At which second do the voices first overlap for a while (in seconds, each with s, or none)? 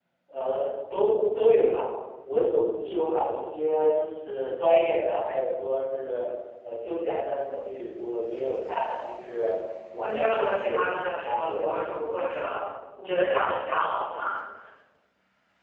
10.0 s